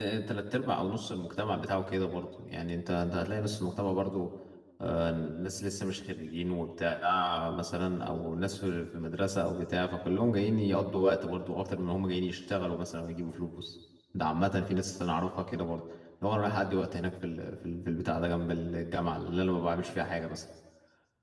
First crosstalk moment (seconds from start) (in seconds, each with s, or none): none